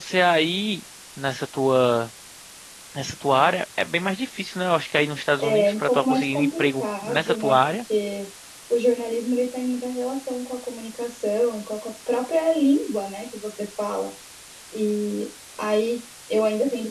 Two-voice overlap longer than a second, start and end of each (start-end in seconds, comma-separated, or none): 5.4-7.7